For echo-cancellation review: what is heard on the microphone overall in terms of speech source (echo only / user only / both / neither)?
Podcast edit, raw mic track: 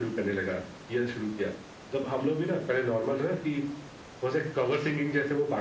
echo only